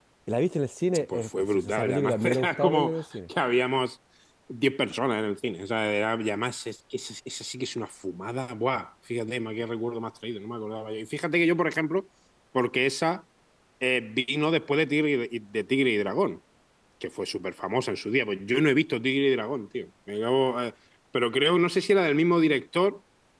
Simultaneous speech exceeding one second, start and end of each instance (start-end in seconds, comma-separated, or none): 1.1-3.0